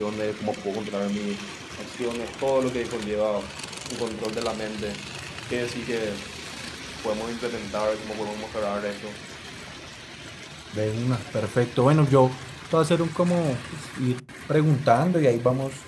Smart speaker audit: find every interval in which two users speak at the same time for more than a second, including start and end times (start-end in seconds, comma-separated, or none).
none